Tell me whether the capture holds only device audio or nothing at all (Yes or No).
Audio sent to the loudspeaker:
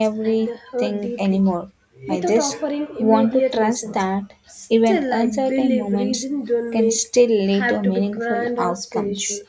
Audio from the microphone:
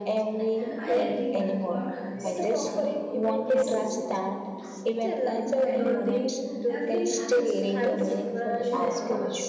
No